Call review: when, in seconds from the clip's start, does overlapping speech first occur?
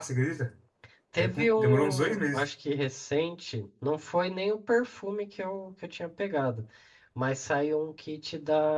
1.2 s

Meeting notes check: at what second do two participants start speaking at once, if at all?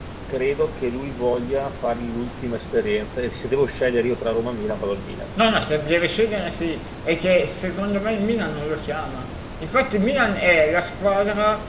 none

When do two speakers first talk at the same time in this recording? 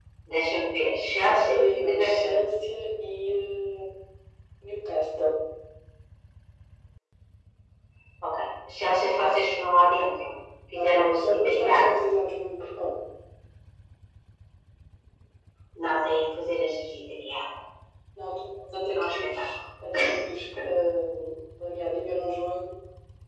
1.1 s

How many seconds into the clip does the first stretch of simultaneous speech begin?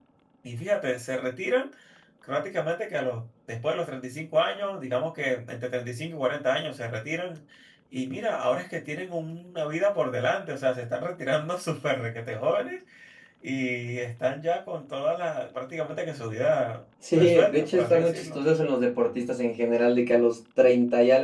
17.0 s

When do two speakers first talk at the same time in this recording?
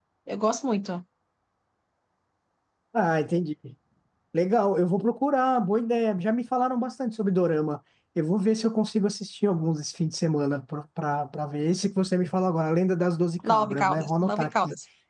13.4 s

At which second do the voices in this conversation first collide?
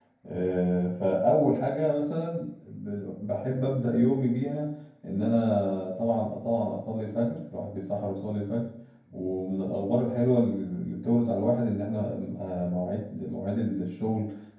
none

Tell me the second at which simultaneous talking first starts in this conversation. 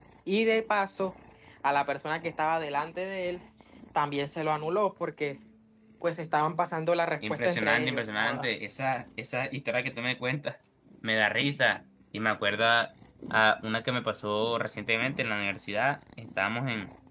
7.2 s

